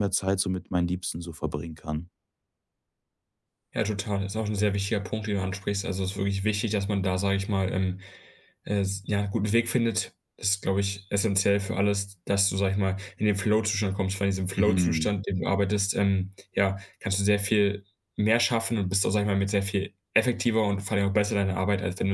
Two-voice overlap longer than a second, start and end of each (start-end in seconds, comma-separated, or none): none